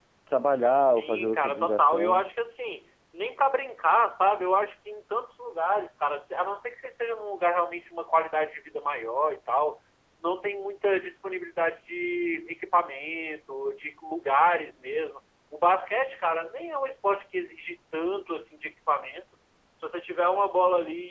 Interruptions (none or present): present